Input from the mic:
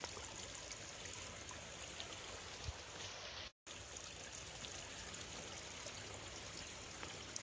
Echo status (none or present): none